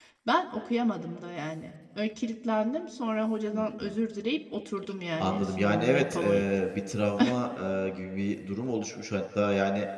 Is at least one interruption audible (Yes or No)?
Yes